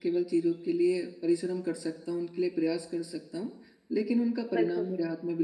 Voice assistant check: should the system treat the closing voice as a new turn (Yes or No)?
No